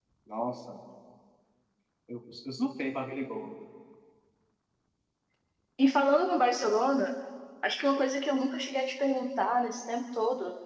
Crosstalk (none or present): none